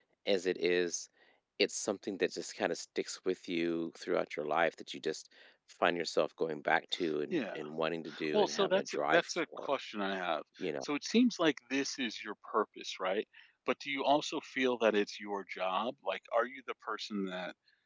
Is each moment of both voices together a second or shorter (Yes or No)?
No